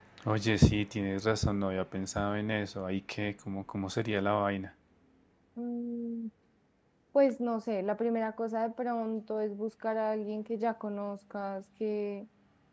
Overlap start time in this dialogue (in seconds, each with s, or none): none